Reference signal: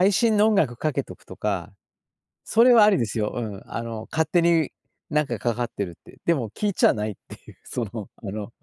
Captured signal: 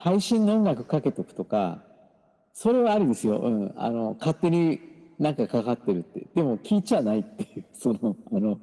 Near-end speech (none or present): none